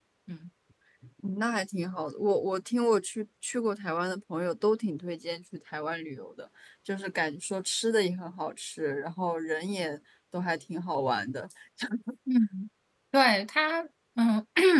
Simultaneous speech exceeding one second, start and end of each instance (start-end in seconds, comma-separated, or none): none